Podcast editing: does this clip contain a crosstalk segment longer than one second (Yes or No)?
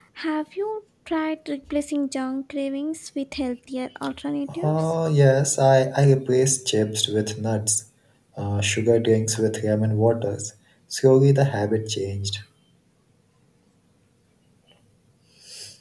No